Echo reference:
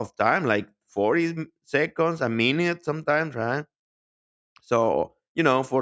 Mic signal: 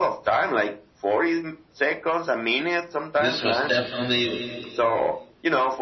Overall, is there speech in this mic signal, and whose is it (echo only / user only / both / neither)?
both